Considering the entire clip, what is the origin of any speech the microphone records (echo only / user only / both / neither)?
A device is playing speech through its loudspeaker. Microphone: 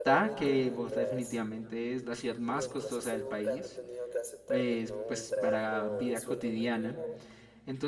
both